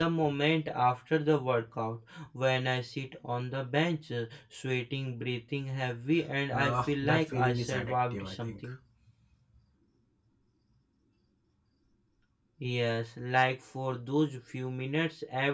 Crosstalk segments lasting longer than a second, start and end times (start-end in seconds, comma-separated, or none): 6.5-8.7